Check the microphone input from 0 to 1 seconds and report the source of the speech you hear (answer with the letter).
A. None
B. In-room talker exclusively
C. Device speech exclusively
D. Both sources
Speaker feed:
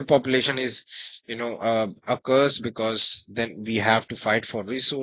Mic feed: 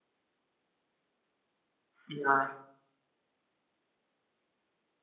A